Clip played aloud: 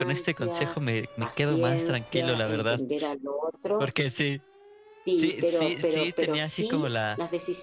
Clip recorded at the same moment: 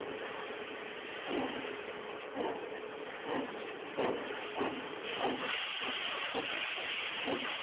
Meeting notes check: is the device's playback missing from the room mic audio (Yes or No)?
Yes